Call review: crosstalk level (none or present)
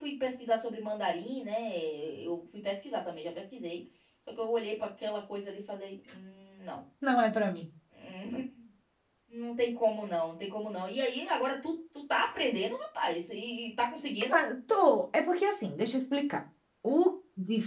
none